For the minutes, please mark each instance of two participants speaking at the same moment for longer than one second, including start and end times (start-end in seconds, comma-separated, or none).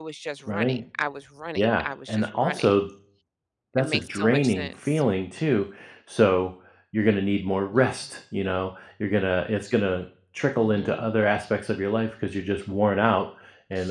1.6-2.8, 3.8-5.0